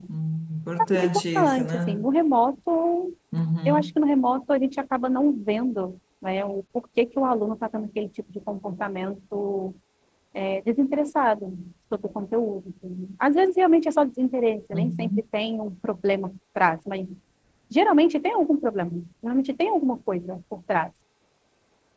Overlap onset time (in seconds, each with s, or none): 0.8 s